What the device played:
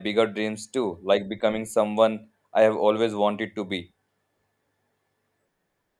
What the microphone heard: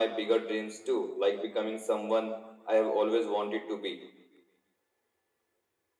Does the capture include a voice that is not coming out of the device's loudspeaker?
No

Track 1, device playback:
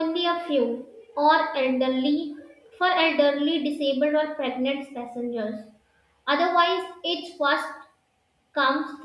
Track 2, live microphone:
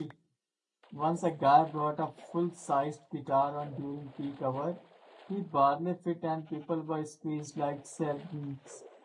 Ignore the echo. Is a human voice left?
Yes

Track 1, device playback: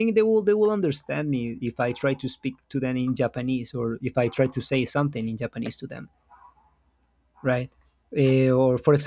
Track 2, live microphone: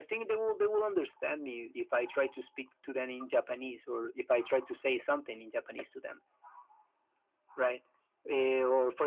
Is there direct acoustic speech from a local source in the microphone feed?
No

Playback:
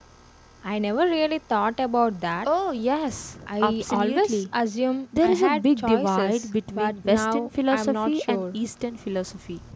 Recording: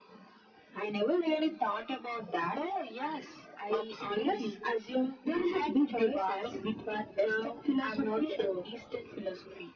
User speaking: No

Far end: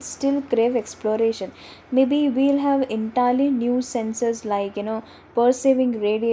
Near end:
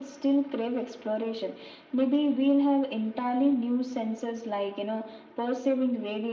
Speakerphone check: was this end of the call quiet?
Yes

